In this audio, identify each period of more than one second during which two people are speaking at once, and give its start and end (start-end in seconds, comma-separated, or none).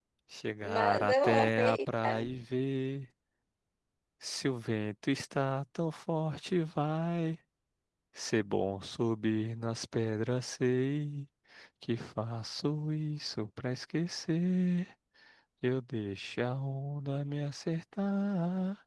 0.7-2.3